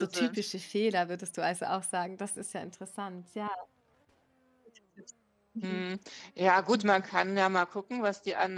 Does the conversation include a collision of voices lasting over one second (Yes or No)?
No